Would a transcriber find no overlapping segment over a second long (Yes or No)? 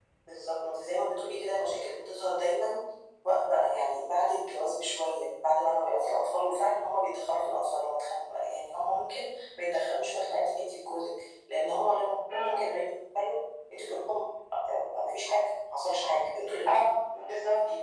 Yes